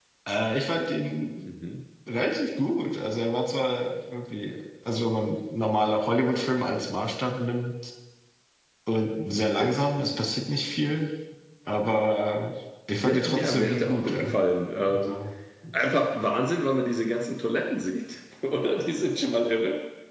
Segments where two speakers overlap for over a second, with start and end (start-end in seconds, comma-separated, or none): 13.0-14.3